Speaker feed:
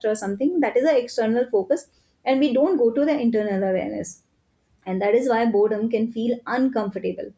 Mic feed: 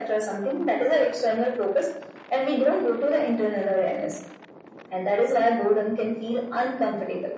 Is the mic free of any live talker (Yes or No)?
Yes